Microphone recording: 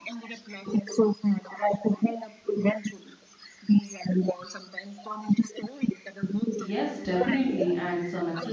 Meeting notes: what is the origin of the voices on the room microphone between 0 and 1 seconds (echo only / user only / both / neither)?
echo only